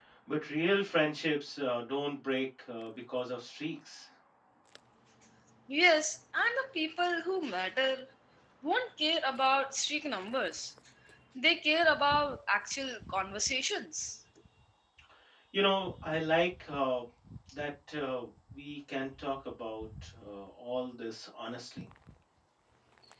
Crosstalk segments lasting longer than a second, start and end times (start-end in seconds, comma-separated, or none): none